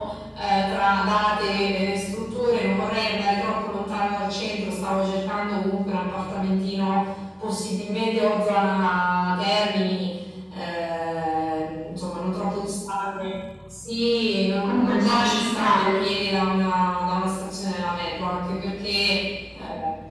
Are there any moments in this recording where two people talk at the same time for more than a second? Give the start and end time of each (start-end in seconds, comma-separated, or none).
14.6-16.0